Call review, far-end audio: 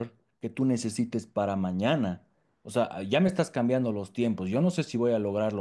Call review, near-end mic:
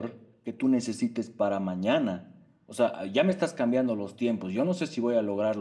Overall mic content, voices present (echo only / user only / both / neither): echo only